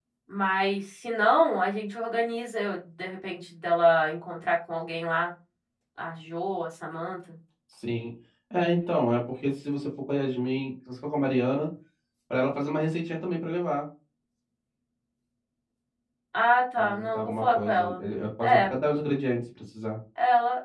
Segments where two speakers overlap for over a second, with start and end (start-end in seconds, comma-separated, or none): 16.8-18.0